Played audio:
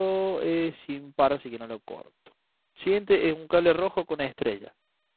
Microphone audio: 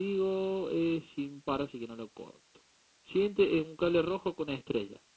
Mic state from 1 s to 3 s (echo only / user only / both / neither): echo only